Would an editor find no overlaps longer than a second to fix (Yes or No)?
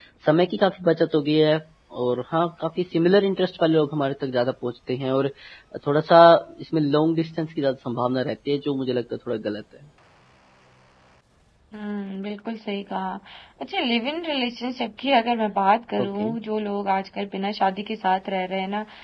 Yes